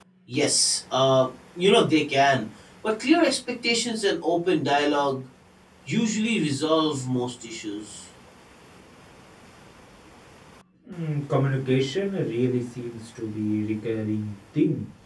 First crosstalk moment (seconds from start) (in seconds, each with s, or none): none